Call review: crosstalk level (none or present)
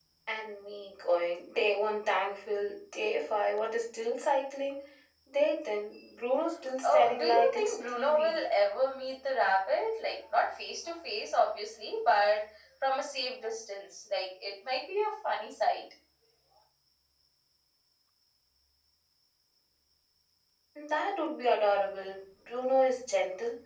present